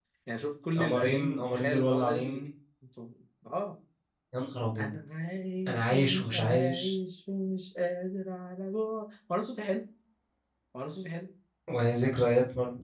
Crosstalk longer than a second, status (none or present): present